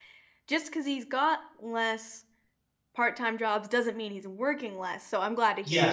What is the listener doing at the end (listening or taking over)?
taking over